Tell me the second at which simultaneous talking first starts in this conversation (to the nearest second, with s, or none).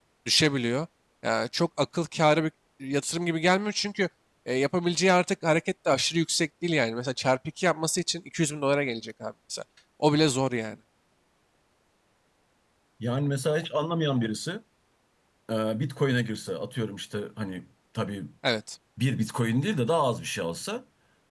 none